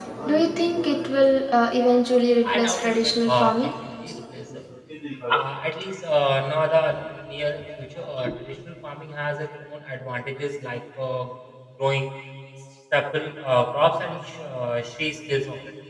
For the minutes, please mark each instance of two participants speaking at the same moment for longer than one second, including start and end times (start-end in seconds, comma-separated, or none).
2.4-3.7